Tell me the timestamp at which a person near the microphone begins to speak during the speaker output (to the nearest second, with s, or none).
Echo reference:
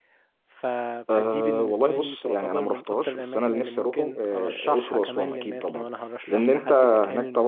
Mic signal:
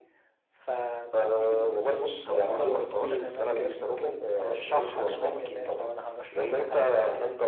2 s